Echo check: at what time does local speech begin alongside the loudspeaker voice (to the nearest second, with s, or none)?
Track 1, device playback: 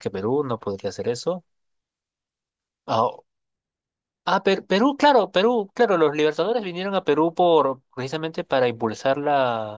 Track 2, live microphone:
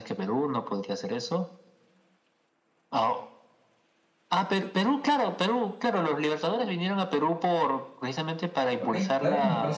9 s